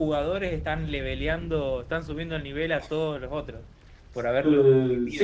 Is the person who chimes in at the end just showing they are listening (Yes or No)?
No